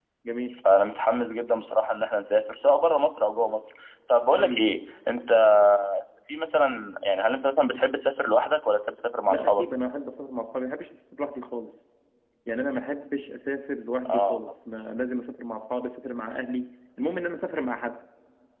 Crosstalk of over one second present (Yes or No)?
No